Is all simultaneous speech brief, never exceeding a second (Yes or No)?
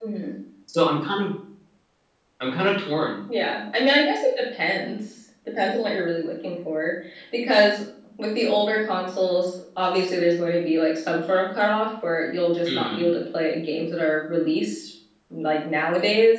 Yes